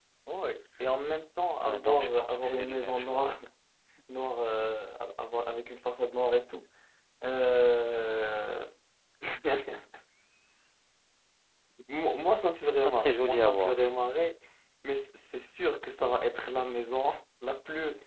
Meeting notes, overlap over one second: present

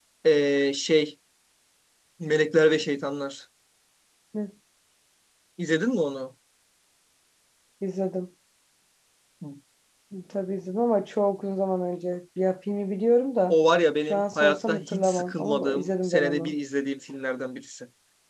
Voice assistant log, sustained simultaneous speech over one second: present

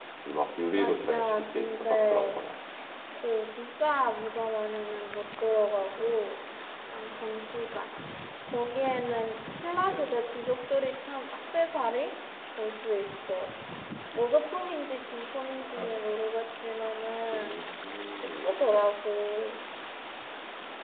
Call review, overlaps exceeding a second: present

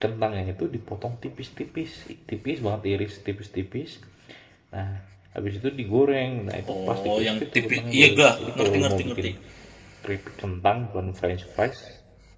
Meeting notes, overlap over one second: present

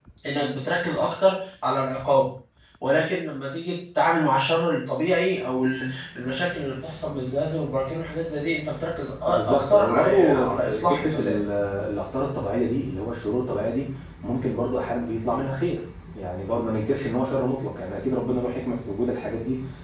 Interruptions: present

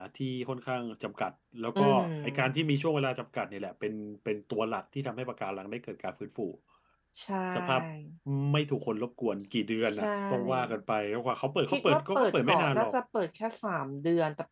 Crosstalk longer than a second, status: present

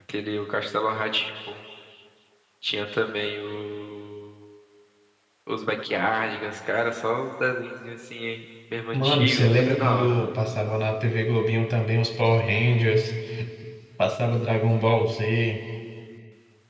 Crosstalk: present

